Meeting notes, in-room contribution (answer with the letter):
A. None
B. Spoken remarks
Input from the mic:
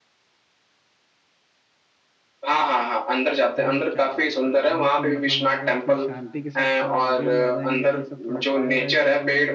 B